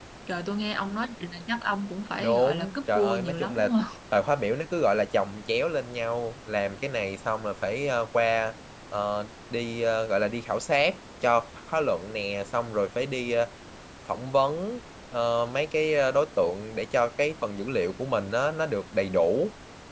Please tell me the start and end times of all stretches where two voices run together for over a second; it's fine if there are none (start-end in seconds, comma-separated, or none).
2.2-3.7